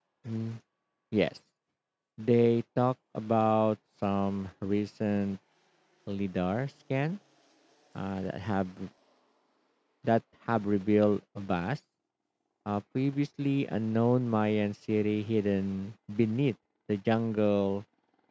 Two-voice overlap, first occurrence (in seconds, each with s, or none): none